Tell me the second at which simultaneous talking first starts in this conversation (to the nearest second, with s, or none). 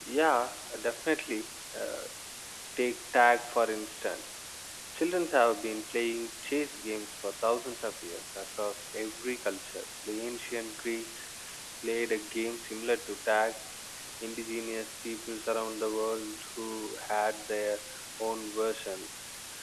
none